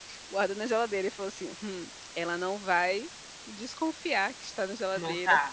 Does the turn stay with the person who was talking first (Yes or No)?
Yes